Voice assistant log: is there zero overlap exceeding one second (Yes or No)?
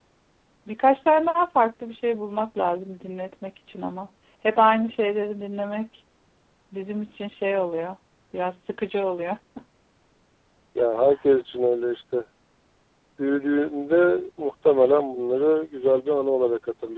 Yes